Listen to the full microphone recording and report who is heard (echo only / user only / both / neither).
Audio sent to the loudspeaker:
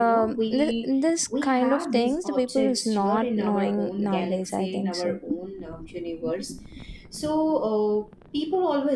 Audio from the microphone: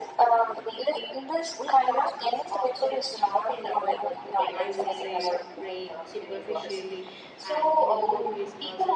both